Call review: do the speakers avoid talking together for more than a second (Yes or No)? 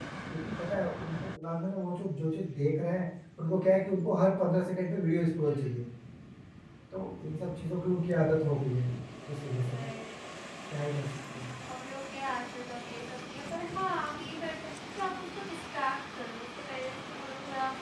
Yes